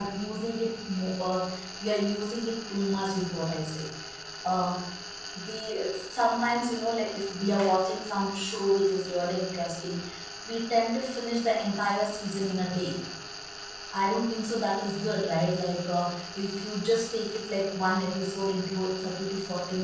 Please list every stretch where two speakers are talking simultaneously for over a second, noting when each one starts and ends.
none

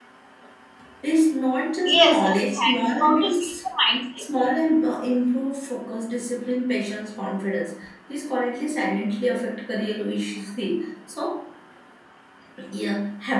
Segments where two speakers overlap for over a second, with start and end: 1.9-3.5

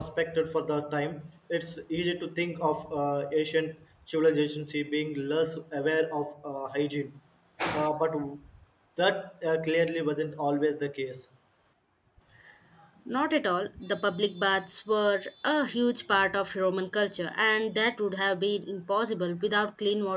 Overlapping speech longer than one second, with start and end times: none

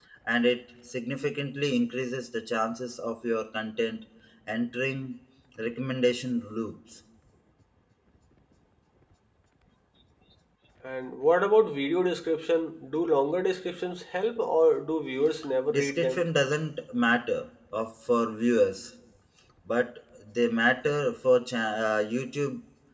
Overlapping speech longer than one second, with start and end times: none

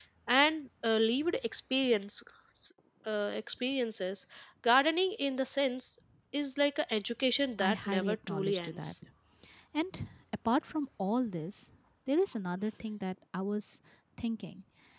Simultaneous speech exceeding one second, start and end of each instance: 7.6-8.9

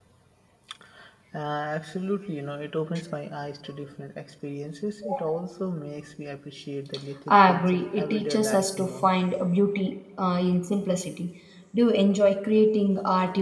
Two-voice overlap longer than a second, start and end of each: 7.3-9.1

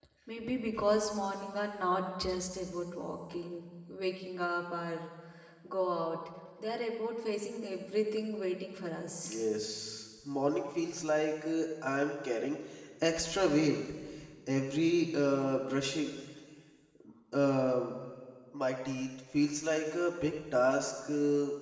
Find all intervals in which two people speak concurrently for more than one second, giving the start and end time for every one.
none

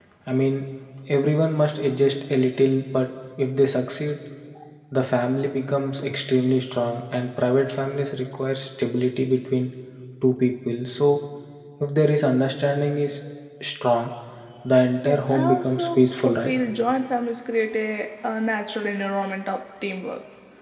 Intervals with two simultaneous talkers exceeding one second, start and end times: 15.0-16.5

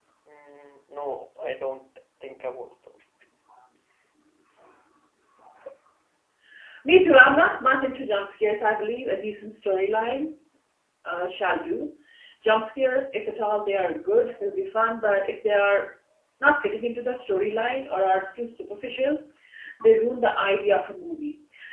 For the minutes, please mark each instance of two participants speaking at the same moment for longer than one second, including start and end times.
none

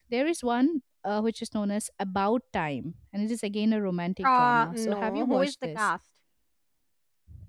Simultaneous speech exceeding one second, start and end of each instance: 4.2-5.9

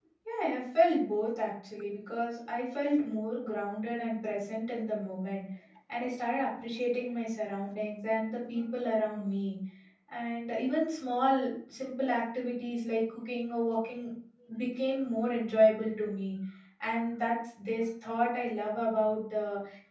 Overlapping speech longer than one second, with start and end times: none

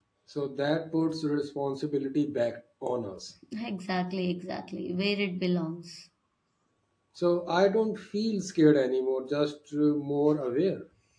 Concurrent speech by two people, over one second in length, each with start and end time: none

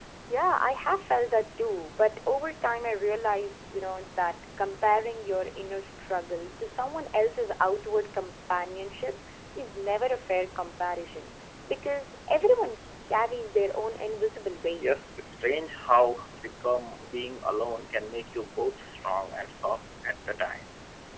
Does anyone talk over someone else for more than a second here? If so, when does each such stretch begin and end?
none

